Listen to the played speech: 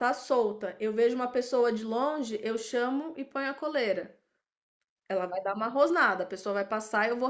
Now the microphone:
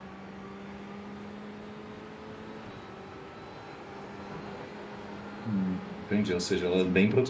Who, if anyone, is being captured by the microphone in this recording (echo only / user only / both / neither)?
user only